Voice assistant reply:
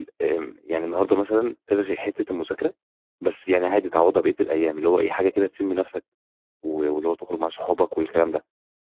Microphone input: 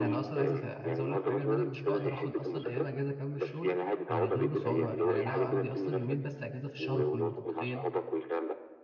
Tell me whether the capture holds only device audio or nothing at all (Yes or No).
No